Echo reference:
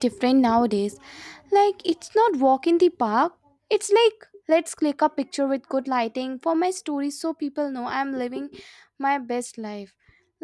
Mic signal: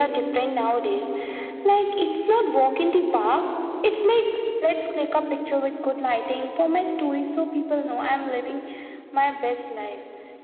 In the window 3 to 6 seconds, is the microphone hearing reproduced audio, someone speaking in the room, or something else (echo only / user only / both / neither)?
echo only